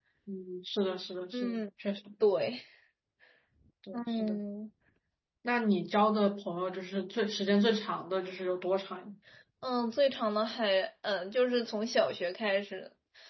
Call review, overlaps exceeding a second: none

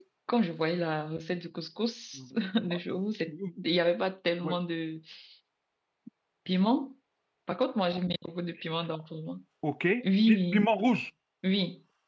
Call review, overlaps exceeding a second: none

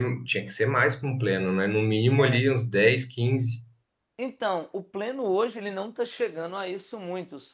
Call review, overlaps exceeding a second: none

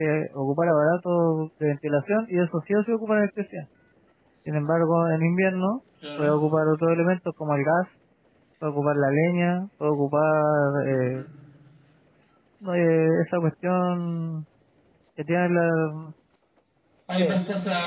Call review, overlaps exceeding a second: none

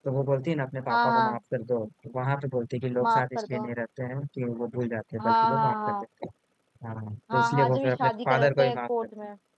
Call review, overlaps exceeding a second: present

